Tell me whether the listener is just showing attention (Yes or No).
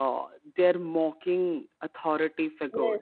No